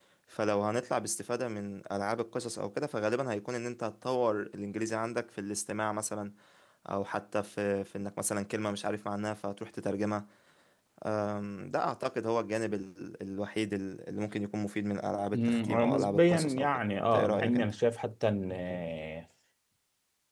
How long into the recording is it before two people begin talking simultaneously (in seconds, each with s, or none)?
15.3 s